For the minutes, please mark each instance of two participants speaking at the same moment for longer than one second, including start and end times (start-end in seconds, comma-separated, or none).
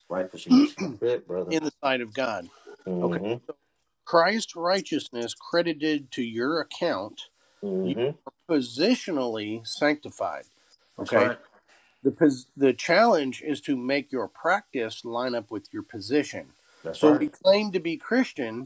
none